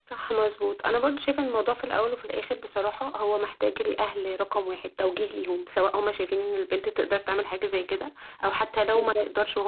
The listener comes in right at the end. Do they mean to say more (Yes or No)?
No